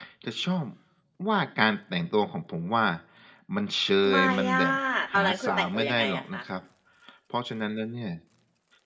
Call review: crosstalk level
present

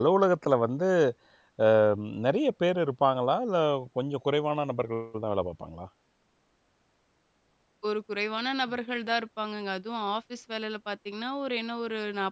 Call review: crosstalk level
none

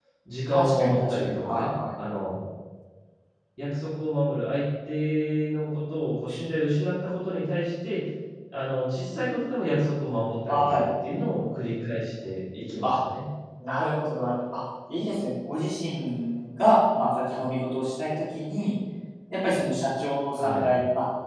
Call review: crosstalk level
present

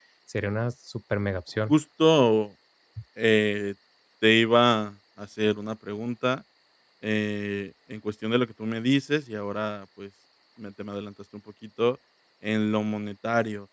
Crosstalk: none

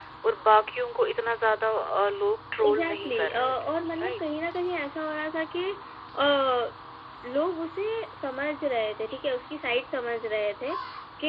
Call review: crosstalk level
present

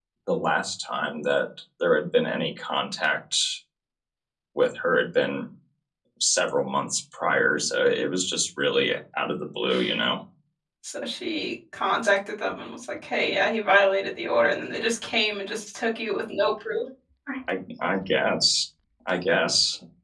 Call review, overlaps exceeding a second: none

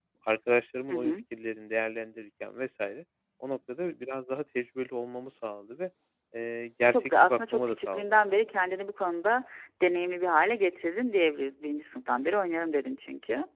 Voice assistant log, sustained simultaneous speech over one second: present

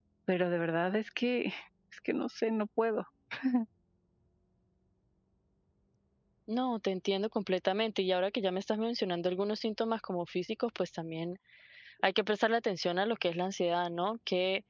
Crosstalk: none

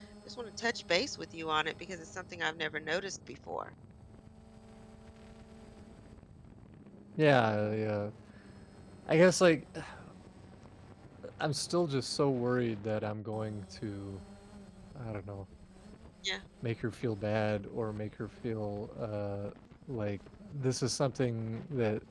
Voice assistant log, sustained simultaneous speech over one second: none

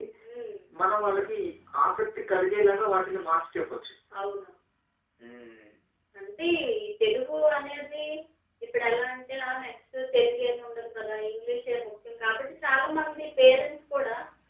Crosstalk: none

